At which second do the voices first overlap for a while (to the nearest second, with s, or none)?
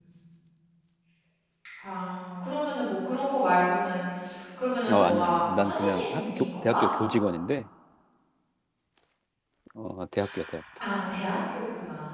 5 s